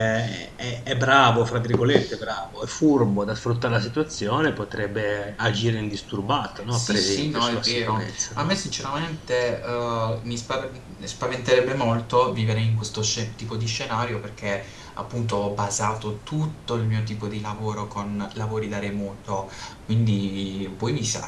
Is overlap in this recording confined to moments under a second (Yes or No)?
No